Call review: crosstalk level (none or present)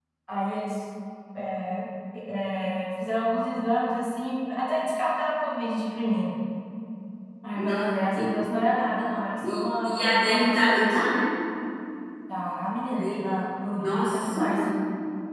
present